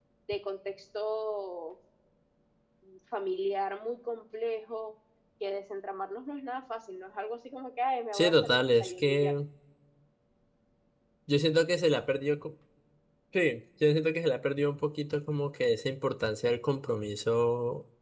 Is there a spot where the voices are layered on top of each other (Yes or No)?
Yes